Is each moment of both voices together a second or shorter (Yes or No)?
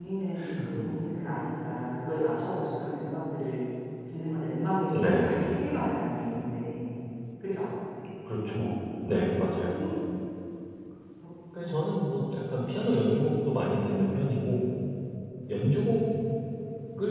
Yes